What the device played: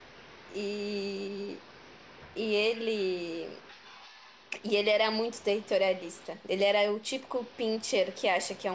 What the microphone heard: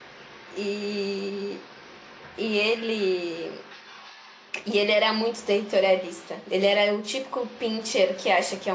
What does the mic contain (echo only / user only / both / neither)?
echo only